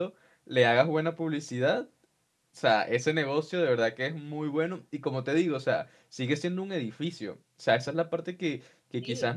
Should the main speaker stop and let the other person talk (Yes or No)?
No